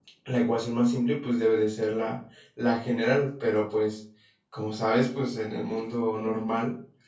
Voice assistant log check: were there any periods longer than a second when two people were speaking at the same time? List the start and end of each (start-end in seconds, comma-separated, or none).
none